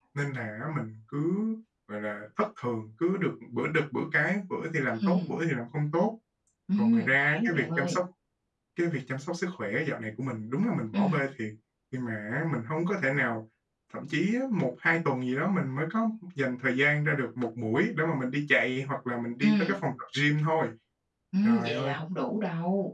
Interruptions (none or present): present